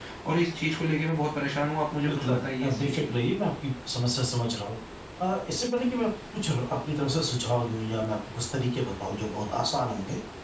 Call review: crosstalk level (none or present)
present